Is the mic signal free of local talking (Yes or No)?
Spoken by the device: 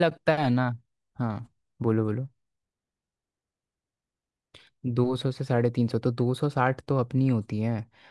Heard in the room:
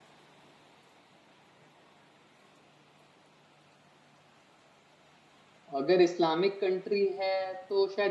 No